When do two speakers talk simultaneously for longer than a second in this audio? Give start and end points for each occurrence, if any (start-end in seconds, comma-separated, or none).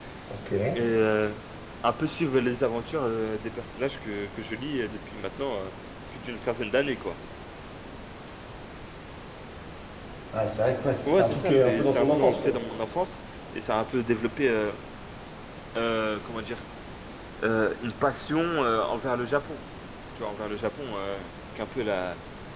11.1-12.6